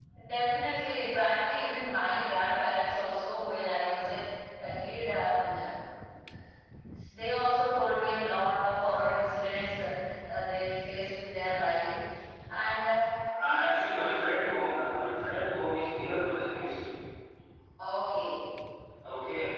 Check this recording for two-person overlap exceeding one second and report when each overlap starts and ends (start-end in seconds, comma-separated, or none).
none